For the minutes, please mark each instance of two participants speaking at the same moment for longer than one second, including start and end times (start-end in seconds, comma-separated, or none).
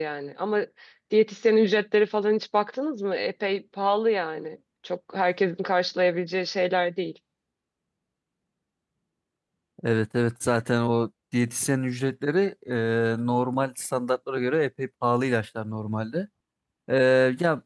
none